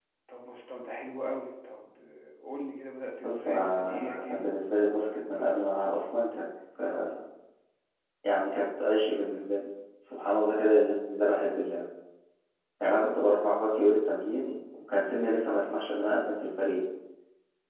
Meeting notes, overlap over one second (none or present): present